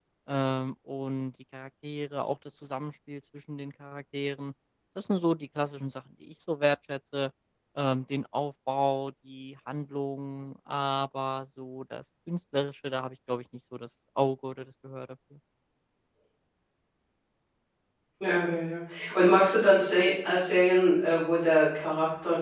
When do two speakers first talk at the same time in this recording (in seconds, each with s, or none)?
none